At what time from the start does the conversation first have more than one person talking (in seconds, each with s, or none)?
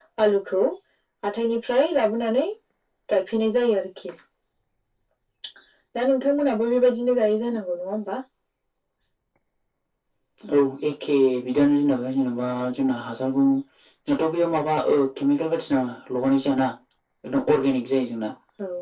none